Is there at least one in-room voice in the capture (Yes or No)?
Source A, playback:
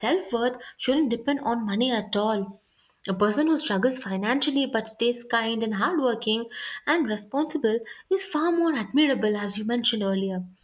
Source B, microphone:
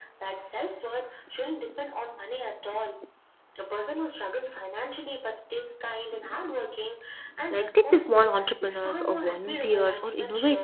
Yes